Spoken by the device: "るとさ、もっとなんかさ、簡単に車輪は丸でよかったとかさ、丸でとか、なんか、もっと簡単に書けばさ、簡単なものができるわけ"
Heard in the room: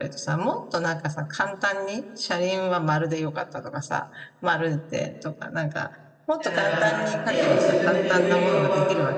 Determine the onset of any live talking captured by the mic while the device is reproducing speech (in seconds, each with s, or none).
6.4 s